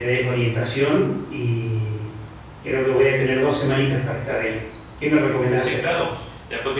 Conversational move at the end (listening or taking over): taking over